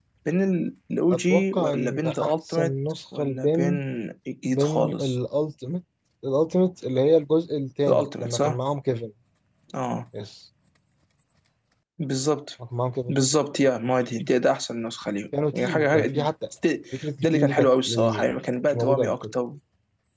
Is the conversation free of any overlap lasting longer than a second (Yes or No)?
No